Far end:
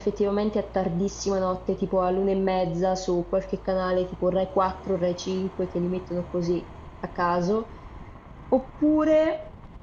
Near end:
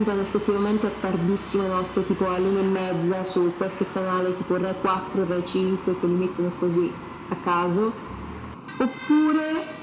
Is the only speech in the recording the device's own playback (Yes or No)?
Yes